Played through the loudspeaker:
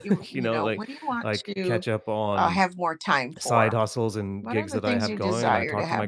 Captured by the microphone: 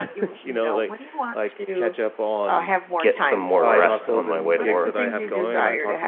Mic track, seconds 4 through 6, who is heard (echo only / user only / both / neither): both